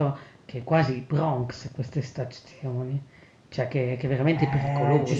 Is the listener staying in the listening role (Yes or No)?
No